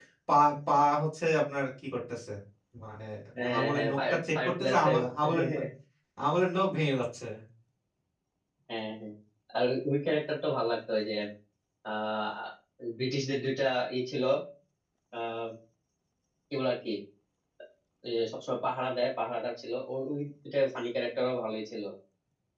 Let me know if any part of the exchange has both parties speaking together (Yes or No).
Yes